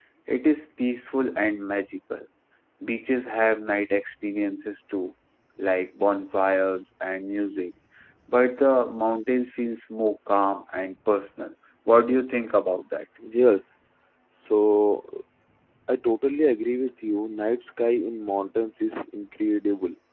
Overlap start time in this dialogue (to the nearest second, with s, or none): none